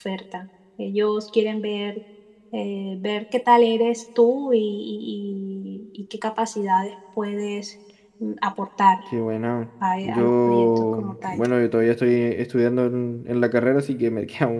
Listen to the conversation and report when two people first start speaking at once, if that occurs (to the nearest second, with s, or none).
10 s